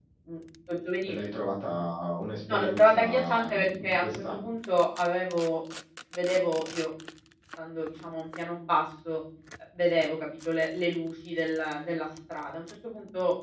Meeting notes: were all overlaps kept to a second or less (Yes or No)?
No